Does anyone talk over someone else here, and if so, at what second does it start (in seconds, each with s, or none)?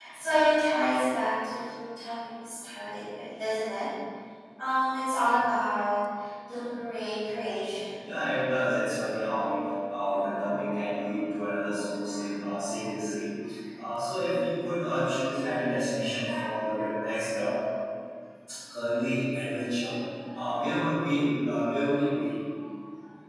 none